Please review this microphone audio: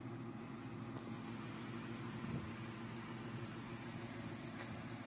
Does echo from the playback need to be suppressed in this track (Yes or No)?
No